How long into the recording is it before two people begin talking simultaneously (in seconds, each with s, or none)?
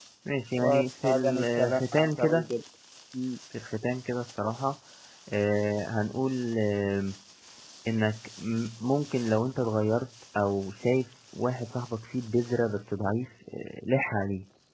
0.6 s